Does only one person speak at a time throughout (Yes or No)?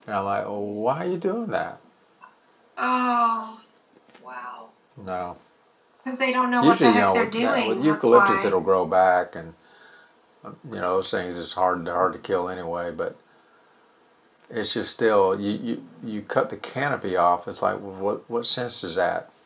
No